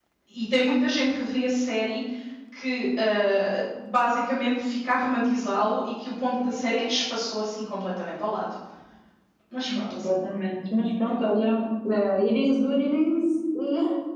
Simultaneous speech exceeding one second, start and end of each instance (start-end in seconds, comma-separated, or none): none